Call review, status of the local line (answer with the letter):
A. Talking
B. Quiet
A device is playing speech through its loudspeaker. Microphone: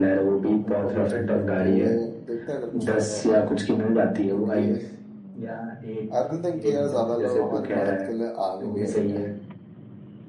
A